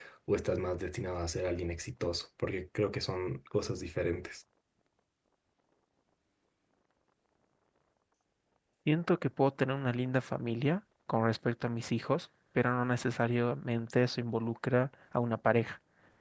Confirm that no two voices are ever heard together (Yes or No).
Yes